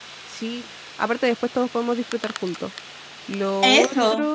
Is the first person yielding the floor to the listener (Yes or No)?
No